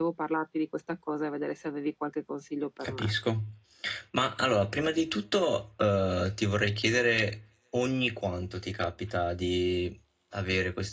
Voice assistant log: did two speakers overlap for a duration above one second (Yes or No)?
No